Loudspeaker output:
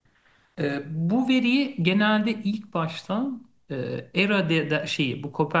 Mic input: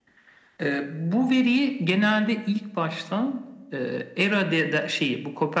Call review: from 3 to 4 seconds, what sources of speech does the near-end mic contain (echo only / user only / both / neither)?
echo only